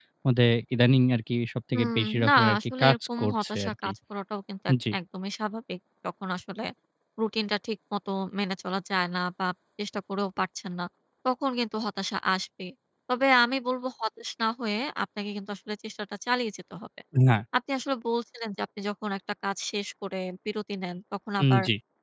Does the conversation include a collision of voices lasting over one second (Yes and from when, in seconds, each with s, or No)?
Yes, from 1.7 s